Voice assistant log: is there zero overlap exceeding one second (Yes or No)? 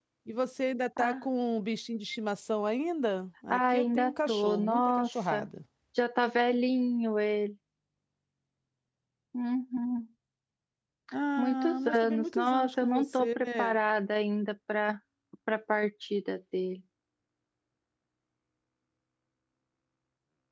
No